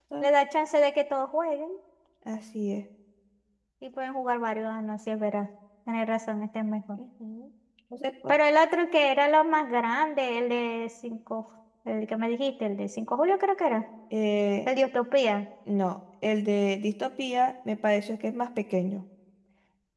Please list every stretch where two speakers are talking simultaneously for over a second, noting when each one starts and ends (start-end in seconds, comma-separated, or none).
none